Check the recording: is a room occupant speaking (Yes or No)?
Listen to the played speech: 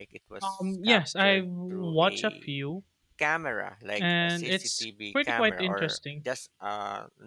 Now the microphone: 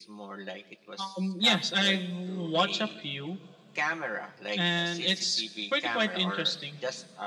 No